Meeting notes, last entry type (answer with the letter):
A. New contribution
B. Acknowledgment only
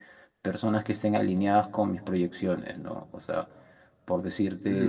B